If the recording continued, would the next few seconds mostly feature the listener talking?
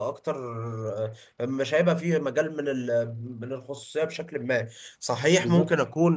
No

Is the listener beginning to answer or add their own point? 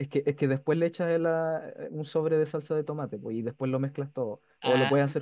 Yes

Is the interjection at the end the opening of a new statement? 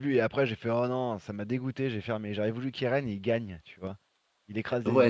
Yes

